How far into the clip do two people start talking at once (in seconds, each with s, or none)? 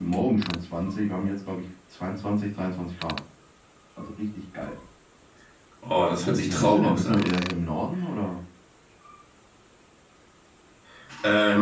6.0 s